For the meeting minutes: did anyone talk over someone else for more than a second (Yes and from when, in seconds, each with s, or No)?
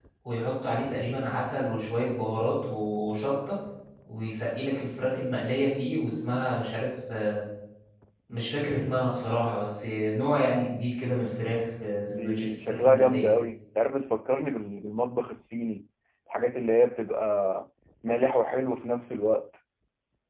Yes, from 12.1 s